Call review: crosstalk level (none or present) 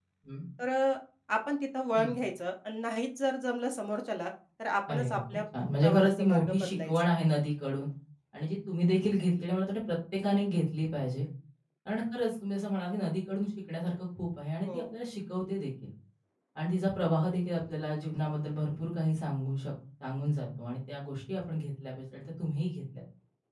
present